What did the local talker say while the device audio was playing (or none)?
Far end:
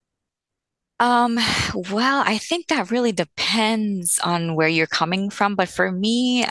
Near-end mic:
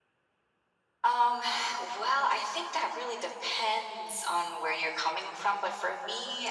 none